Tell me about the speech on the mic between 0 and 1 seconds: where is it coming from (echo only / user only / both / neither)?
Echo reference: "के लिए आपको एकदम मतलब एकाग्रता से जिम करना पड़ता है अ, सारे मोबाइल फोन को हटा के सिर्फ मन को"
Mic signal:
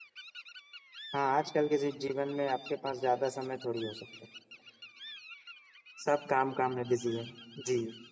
neither